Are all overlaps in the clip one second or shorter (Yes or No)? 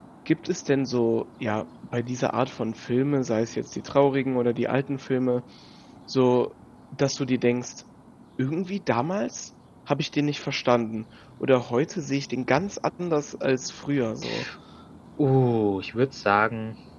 Yes